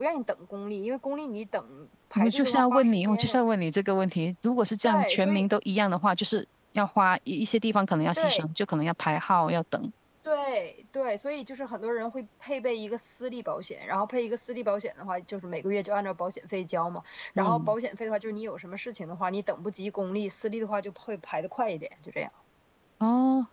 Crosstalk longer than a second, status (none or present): present